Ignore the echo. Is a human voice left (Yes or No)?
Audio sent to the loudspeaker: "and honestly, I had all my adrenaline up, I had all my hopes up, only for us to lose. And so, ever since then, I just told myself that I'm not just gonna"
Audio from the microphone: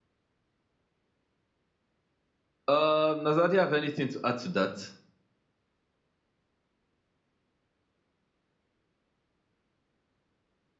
Yes